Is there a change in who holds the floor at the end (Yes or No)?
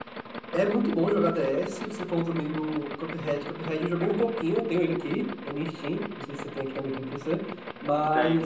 No